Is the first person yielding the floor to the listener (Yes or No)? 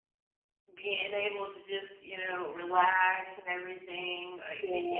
No